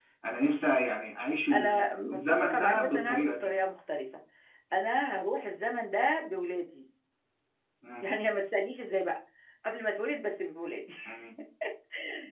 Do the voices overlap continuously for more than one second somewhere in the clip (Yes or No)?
Yes